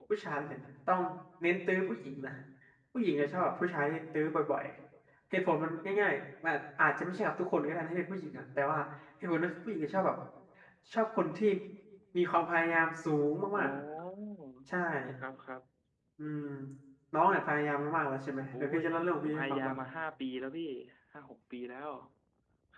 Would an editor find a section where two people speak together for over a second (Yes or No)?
No